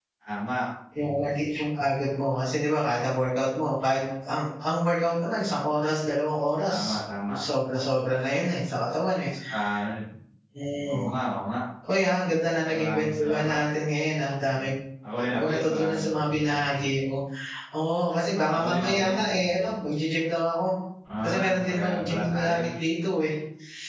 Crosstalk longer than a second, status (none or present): present